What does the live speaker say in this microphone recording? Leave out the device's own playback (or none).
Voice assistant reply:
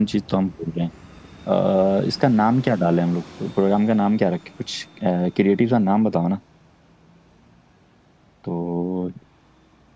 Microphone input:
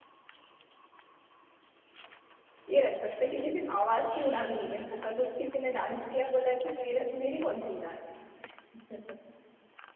ये रख सकते हैं, क्योंकि सिर्फ आवाज की उड़ान नहीं है ना अगर किसी ने डांस किया बोला कि मेरा मेरी कौन सी उड़ान है